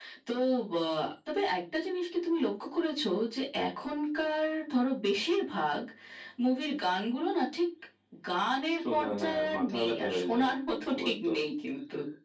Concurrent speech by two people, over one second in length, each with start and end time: 8.8-10.5

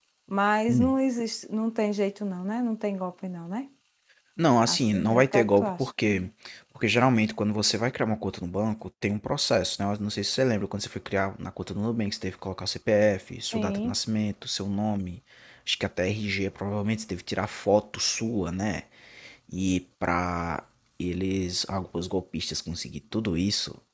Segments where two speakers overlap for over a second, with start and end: 4.7-5.9

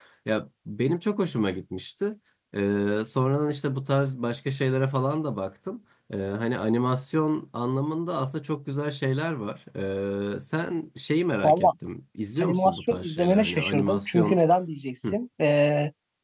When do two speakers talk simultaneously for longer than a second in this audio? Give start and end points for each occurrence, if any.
12.4-14.4

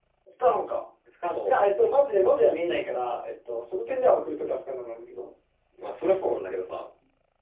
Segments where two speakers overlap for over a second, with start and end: none

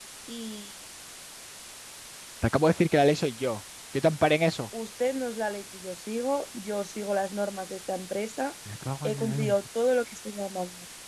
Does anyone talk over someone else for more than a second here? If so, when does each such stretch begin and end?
none

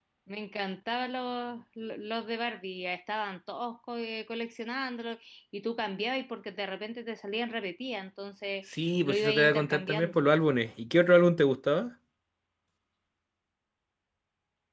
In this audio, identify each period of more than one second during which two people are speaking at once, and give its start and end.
8.7-10.2

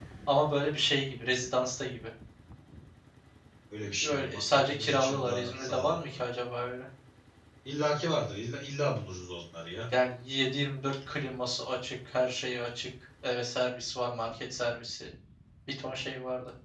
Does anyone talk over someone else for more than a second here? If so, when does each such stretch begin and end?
3.9-6.0

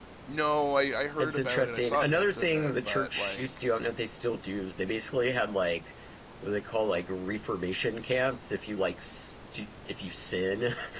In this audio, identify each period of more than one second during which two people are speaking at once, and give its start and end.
1.2-3.5

